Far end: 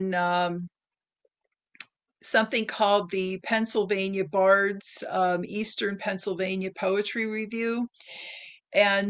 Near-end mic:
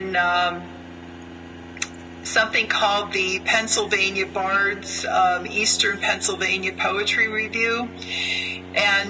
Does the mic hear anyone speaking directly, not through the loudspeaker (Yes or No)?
No